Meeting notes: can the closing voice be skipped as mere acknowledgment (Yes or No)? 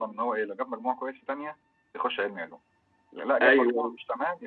Yes